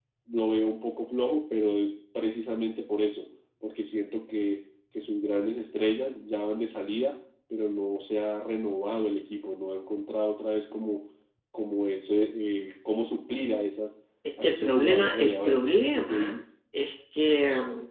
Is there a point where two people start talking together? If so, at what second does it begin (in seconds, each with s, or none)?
14.2 s